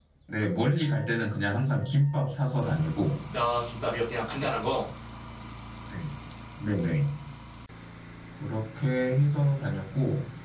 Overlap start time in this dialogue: none

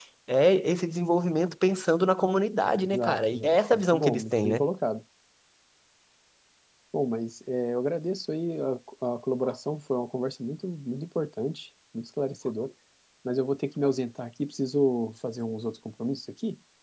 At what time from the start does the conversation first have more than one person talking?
2.8 s

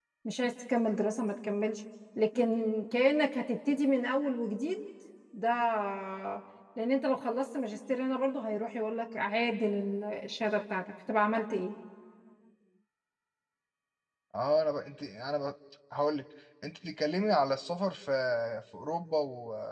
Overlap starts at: none

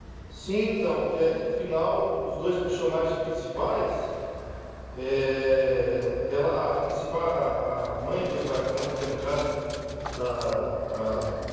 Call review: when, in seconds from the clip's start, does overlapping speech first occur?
none

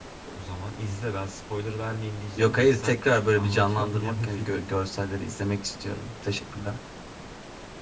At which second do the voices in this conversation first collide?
2.4 s

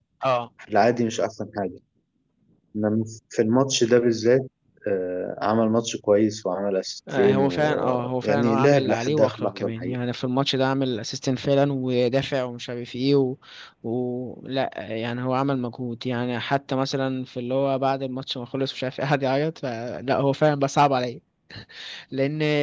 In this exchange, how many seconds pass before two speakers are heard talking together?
7.1 s

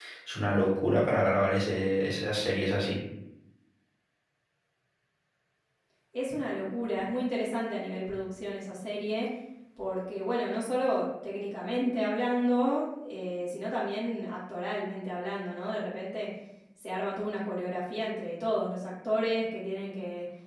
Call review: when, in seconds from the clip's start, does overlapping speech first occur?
none

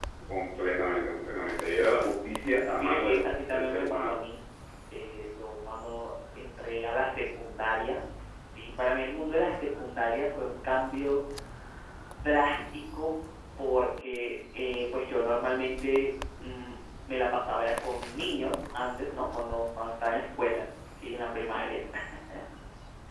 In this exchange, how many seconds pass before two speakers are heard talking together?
2.8 s

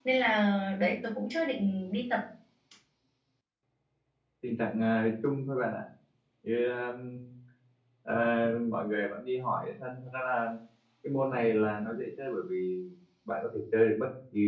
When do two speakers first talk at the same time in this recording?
none

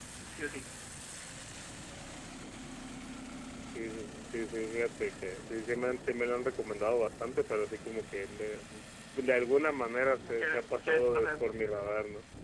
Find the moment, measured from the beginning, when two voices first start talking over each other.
10.2 s

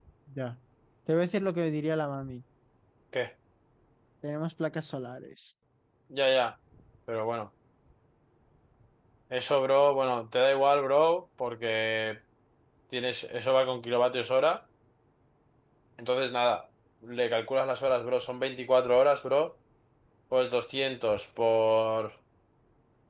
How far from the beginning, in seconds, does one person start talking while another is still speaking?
none

